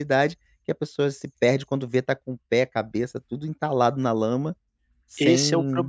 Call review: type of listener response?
taking over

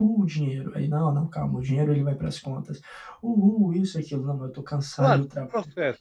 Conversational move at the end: taking over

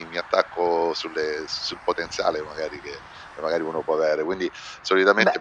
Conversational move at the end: listening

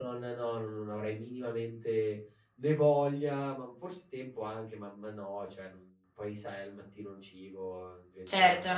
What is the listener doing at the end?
taking over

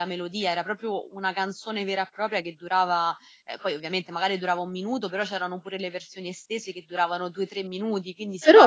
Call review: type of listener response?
taking over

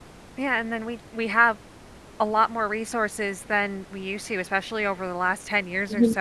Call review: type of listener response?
listening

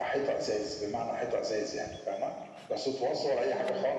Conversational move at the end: listening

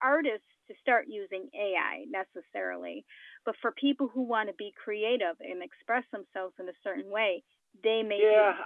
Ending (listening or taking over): taking over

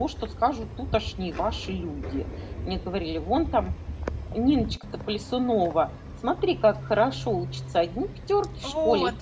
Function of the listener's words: listening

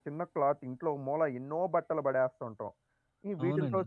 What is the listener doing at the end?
listening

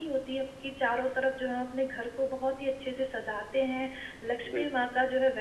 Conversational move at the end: listening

